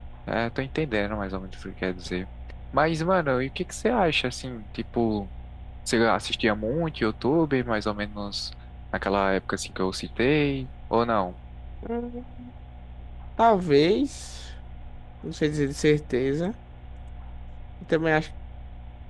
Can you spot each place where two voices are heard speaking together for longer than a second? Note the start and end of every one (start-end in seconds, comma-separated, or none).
none